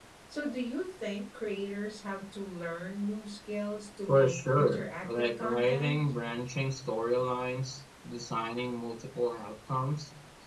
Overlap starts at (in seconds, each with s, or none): 4.1 s